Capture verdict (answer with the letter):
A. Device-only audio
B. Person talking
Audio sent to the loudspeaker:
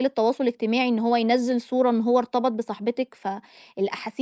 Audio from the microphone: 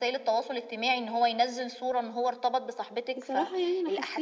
B